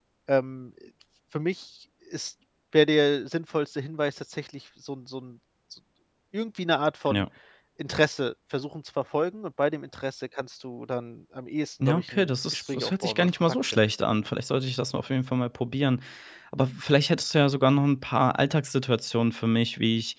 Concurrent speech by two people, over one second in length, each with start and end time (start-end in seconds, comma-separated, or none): 11.8-13.8